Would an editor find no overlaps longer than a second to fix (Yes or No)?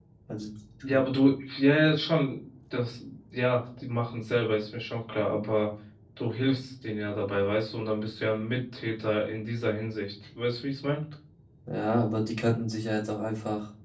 Yes